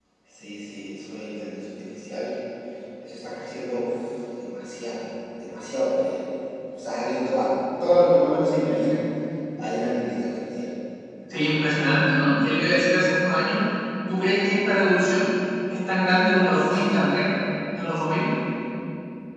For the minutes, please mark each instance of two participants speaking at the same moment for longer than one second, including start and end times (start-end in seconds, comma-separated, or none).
none